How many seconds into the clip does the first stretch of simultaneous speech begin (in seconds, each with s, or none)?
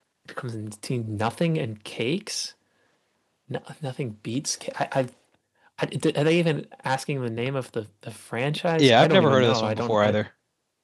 8.8 s